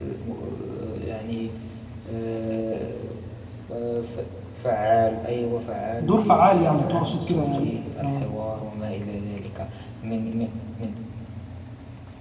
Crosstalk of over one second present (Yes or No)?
Yes